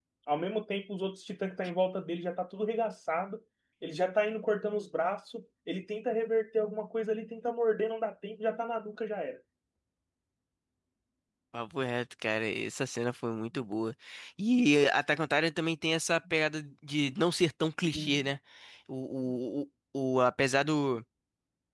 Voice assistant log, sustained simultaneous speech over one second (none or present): none